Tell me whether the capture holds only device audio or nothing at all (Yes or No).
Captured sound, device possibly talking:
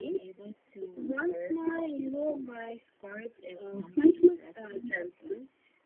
Yes